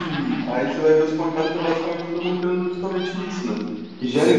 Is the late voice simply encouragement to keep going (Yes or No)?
Yes